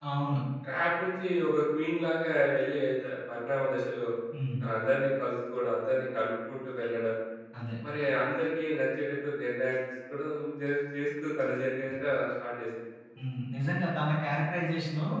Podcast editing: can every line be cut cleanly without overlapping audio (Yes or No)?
Yes